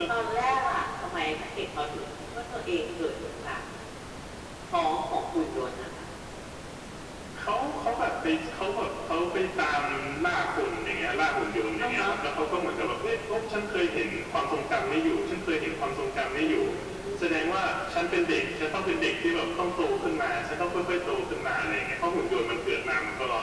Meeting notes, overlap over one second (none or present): none